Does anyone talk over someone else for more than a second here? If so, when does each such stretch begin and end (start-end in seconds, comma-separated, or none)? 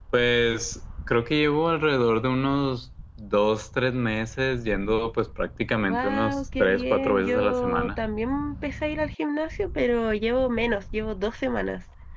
5.8-8.0